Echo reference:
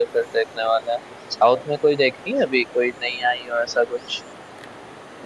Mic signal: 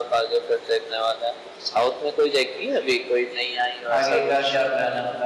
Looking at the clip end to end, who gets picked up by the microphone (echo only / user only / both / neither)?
both